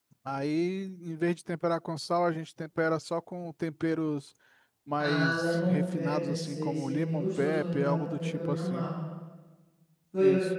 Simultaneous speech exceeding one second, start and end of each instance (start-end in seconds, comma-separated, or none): 5.0-8.8